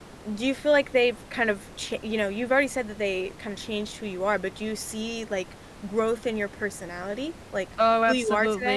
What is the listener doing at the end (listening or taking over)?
taking over